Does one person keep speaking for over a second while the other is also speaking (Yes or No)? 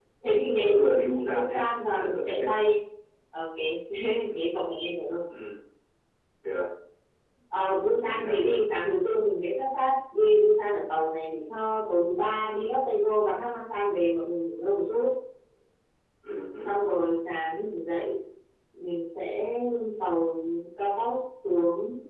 Yes